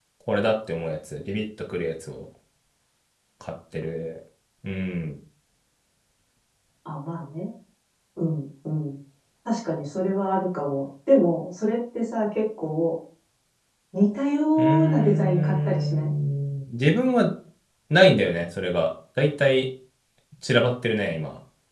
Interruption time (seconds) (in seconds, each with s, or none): 14.6 s